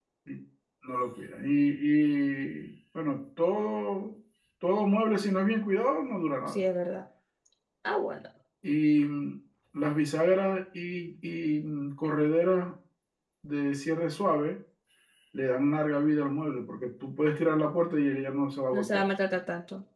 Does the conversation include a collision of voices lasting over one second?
No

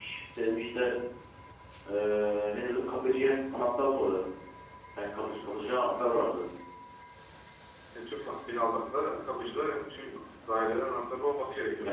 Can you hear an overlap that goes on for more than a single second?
No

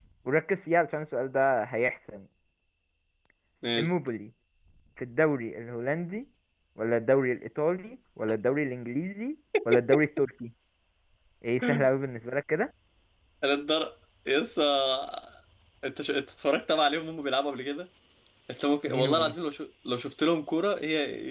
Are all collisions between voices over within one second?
Yes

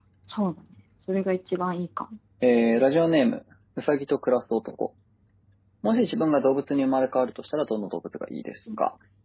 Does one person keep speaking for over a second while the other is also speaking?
No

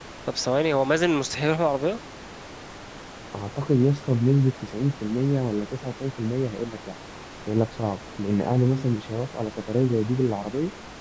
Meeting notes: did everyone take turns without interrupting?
Yes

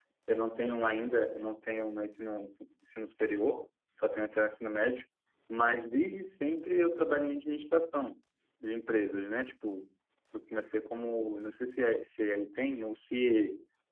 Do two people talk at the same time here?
No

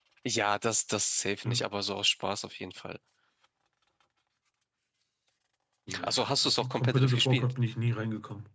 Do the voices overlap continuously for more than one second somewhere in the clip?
Yes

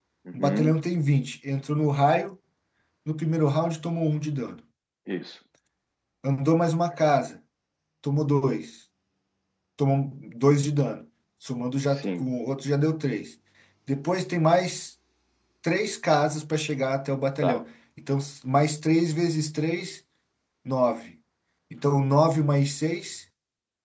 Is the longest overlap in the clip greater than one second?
No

